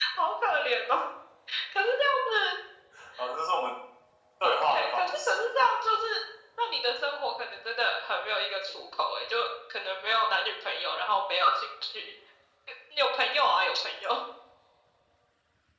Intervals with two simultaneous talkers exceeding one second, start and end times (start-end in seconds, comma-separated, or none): 4.4-5.7